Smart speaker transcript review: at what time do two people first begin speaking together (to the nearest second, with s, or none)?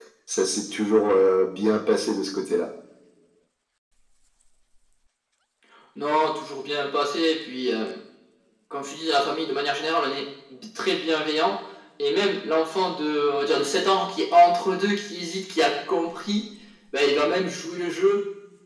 none